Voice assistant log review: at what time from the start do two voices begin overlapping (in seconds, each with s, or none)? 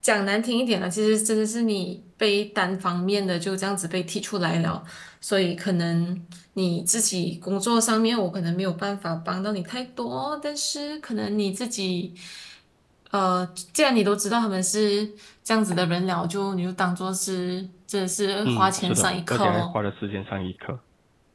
18.4 s